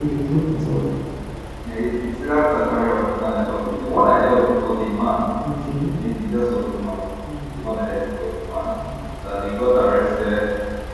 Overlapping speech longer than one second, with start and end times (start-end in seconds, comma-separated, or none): none